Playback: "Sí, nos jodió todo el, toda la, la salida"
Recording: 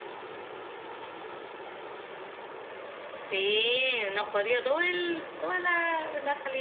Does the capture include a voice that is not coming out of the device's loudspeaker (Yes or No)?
No